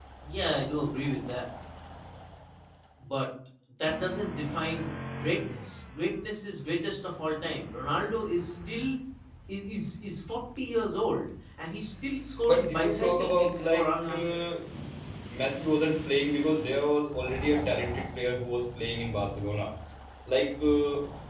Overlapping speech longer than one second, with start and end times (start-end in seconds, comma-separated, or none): 12.4-14.4